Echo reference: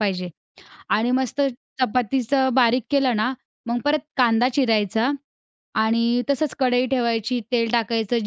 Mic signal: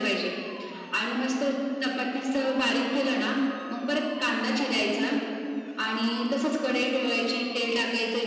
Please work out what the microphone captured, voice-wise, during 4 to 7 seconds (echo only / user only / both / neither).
echo only